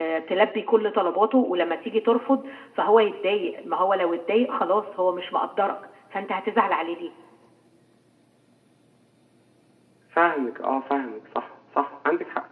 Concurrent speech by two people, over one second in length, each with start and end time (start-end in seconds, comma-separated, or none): none